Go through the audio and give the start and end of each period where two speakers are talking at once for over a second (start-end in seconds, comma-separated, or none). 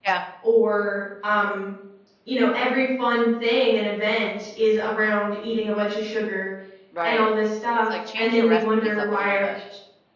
7.8-9.5